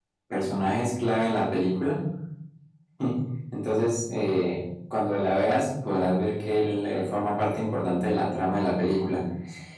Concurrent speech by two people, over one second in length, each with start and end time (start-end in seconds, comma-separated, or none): none